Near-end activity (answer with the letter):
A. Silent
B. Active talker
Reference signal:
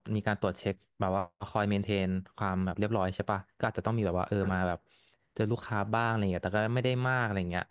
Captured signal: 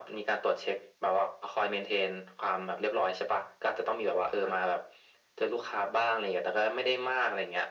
A